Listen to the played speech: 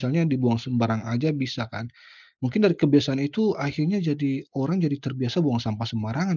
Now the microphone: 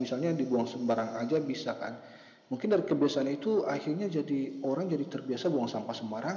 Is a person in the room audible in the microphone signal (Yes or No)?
No